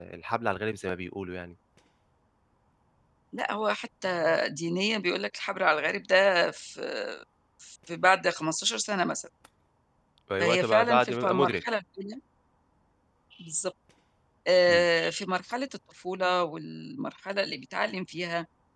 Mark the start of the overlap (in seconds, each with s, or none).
10.4 s